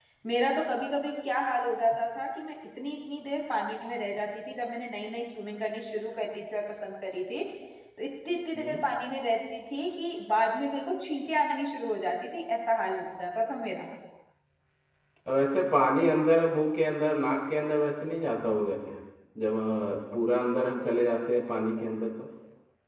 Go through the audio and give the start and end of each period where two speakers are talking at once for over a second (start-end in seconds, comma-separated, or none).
none